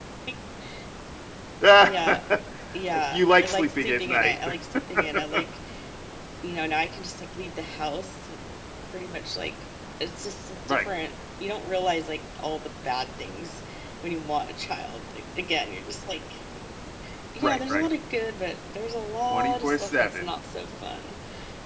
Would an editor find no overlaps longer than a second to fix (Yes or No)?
No